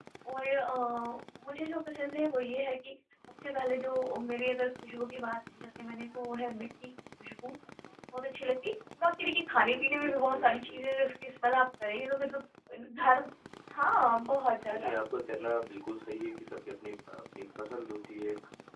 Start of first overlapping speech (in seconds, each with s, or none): 9.5 s